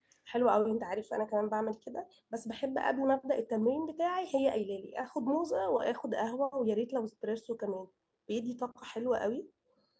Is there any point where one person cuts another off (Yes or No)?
No